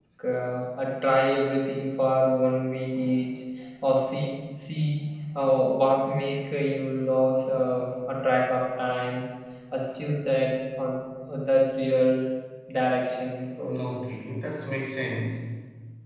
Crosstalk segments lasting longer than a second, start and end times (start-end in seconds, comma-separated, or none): none